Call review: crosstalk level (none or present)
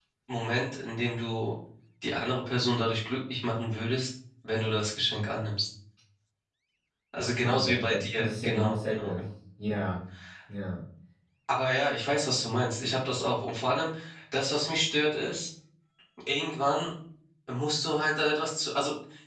present